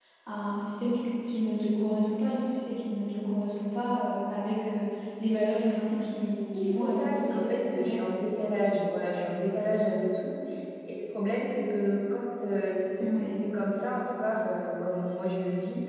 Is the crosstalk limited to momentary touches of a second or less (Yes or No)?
No